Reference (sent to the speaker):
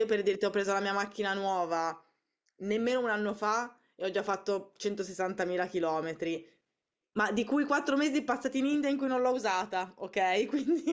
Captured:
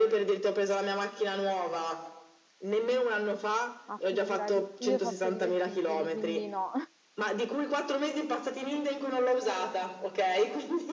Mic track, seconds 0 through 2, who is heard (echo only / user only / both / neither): echo only